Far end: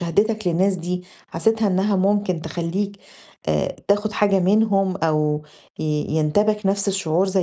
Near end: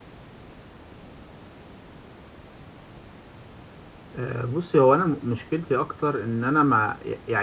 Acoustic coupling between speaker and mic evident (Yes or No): No